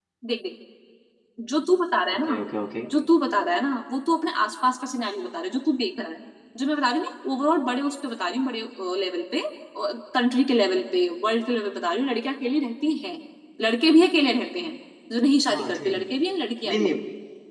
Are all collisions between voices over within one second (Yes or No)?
Yes